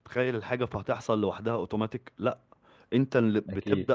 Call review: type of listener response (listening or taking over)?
listening